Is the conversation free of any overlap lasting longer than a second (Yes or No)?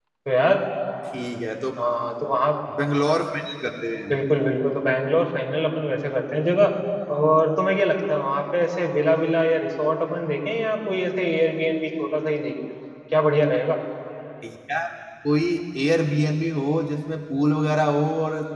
Yes